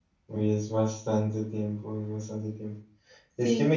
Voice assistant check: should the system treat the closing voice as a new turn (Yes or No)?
No